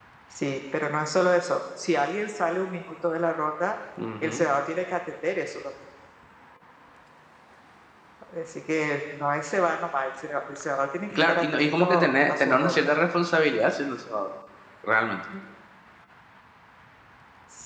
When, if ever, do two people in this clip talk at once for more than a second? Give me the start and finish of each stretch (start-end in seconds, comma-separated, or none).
11.1-12.8